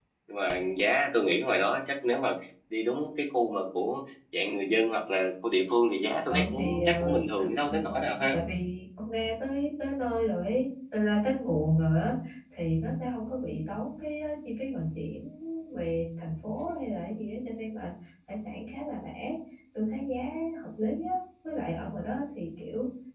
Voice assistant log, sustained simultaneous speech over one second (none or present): present